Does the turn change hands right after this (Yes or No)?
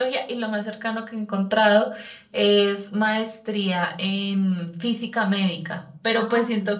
No